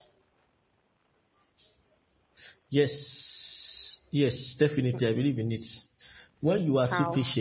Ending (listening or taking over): listening